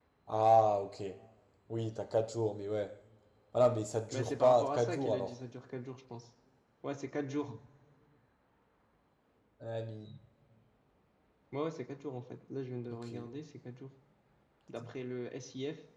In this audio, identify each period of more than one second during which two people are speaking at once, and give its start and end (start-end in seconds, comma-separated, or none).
4.1-5.3